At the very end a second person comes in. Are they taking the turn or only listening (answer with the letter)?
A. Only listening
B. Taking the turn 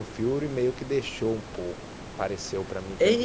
B